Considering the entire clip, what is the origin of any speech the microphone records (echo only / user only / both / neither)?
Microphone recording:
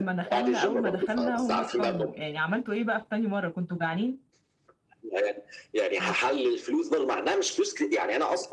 both